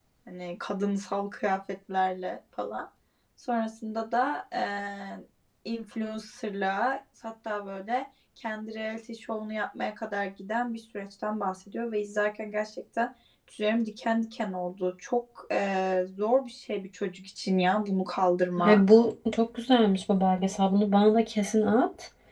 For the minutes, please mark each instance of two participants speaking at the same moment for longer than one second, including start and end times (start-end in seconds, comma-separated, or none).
none